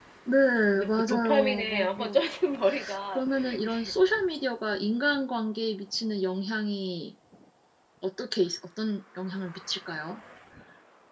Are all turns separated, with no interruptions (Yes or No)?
No